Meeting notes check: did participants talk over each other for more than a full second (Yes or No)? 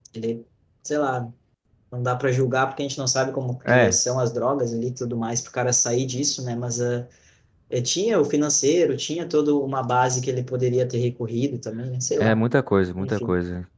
No